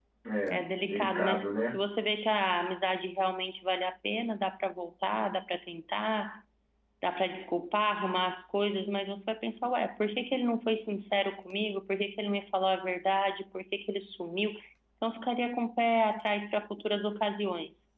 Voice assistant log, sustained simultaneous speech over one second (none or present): present